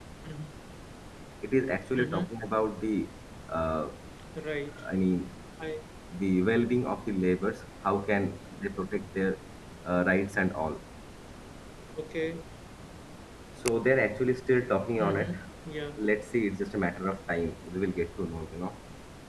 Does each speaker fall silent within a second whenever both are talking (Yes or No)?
Yes